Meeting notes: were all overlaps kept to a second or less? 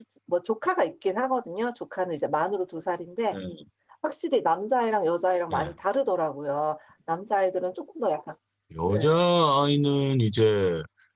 Yes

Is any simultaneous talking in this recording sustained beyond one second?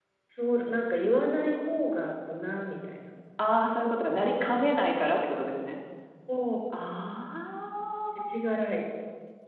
No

